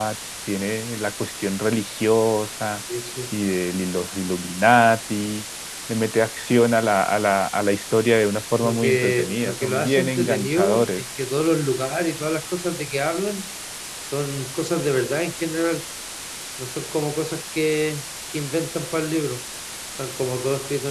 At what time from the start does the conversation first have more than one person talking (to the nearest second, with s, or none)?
9 s